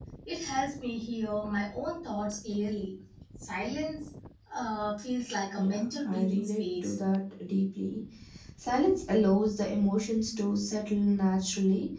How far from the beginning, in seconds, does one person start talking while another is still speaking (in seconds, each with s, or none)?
5.5 s